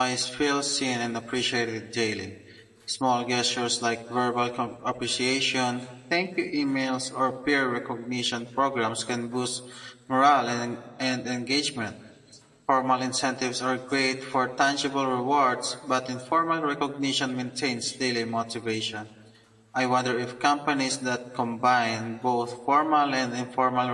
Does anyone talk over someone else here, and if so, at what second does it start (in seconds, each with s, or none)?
none